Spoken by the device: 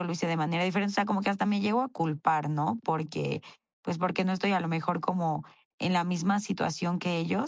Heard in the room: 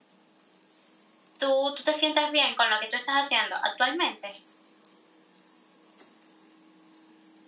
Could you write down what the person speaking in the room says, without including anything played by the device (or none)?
Tú tú te sientes bien con lo que tú estás haciendo actualmente.